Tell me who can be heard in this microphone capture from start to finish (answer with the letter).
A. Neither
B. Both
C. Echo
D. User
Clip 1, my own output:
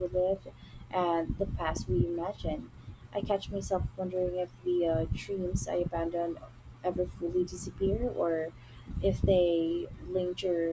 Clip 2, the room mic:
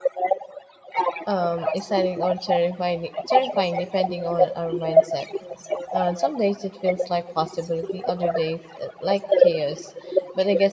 B